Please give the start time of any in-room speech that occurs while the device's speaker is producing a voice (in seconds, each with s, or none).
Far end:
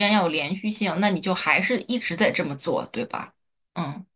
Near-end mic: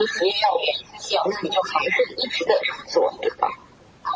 none